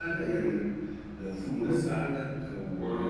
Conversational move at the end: listening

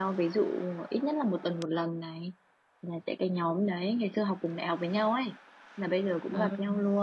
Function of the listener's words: listening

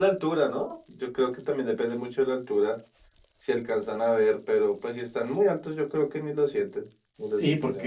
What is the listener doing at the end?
taking over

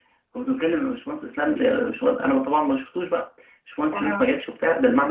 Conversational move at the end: listening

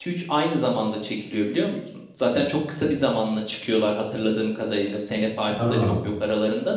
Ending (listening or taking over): listening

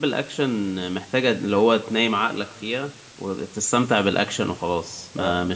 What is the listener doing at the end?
listening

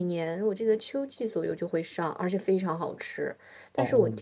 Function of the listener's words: listening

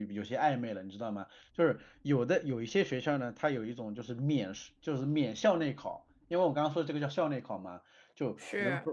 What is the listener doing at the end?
listening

